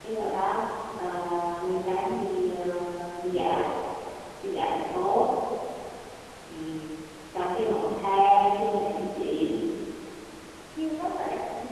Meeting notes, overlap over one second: none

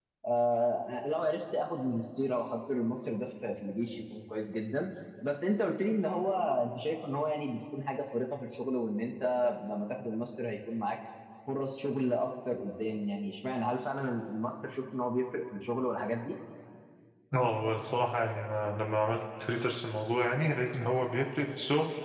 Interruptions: none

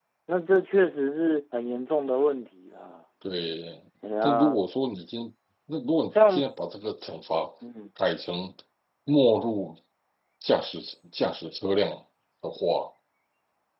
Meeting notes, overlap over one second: none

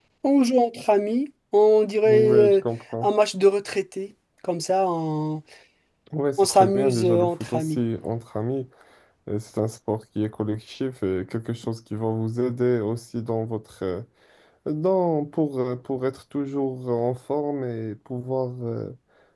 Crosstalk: present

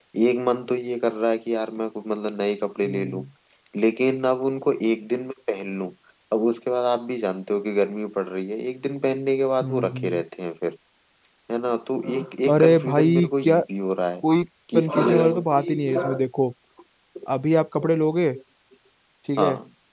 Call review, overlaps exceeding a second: present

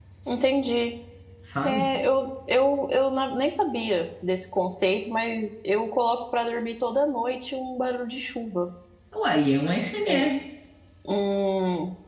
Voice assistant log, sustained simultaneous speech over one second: none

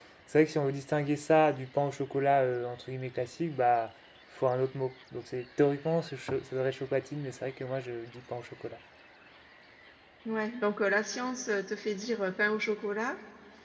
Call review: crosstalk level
none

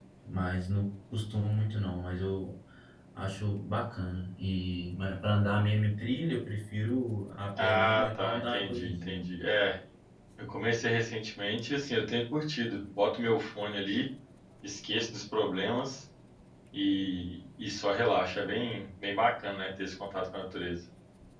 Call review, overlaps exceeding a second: present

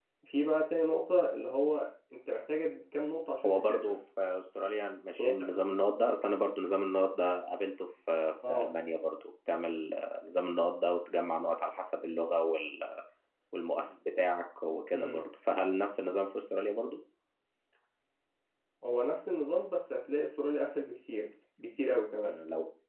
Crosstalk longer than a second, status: none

